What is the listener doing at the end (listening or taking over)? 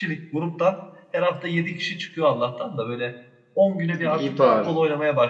listening